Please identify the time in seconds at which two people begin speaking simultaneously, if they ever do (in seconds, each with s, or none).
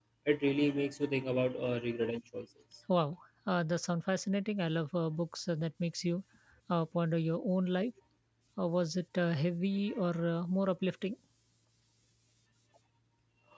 none